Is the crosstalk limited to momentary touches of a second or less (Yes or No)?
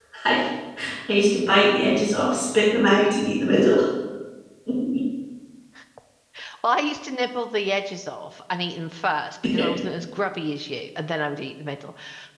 Yes